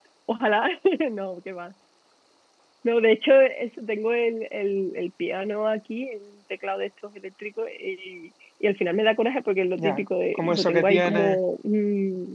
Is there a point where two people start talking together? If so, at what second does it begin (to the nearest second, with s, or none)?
10 s